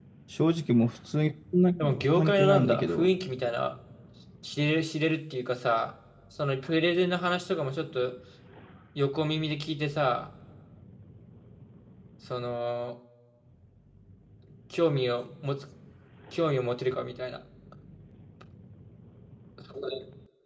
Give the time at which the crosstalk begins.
2 s

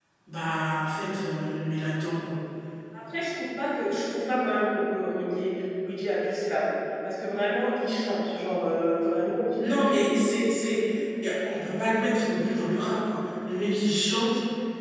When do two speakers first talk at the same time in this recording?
none

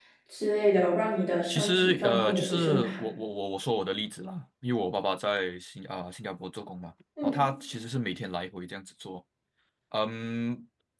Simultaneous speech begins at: 1 s

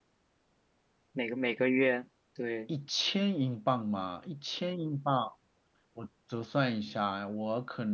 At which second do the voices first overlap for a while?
none

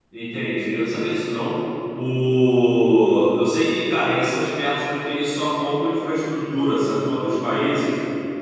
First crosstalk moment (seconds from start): none

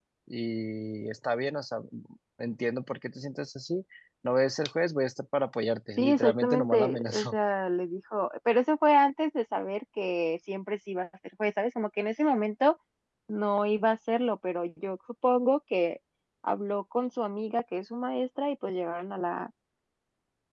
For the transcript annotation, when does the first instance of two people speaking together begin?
6 s

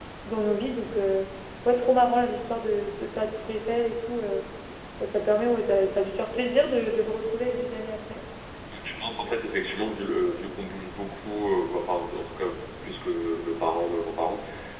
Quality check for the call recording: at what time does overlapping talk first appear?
none

